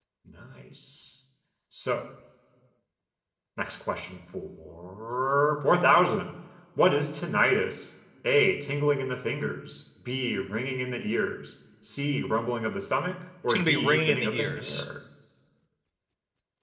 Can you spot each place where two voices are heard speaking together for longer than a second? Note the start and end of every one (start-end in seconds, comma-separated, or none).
13.4-14.8